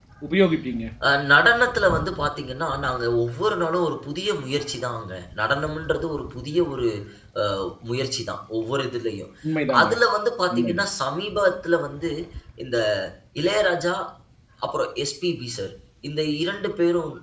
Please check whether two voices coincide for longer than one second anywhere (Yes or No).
No